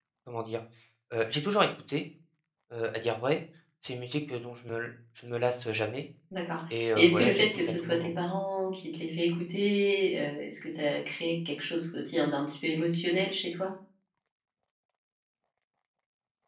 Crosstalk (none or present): present